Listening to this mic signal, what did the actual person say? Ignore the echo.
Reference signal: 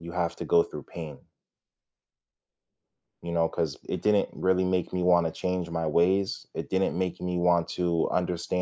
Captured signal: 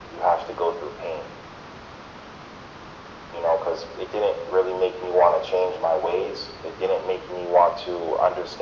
none

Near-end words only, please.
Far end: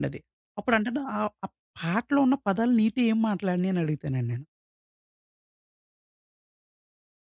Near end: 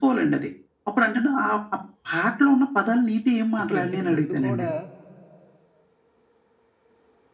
ఇప్పుడు ఇంతకు ముందు కూడా

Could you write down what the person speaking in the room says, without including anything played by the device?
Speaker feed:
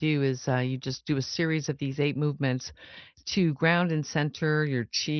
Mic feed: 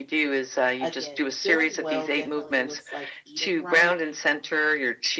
again, feeling well definitely looks like eating right

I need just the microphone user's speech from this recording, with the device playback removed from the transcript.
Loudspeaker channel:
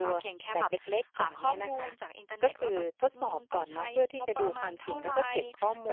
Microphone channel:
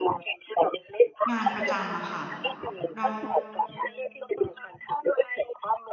งานประจำอะค่ะเรา

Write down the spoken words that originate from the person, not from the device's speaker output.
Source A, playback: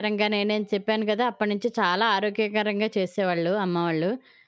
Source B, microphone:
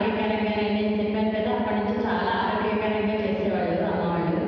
none

